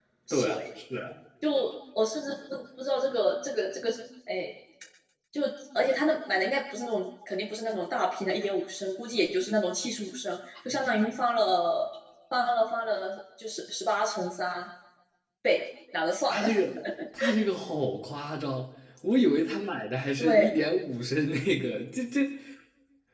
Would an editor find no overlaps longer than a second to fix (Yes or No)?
Yes